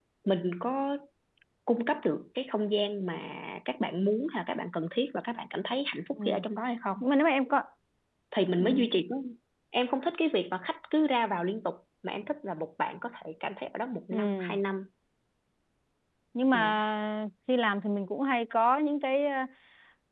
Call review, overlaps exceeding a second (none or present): none